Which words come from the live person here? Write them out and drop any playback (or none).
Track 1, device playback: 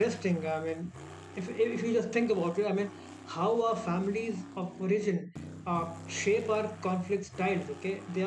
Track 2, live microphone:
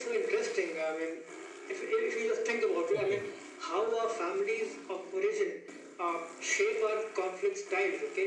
Okay.